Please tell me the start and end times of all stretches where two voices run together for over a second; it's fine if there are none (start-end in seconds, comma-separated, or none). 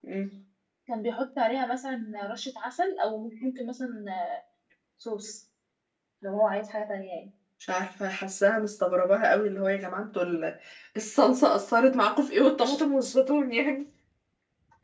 none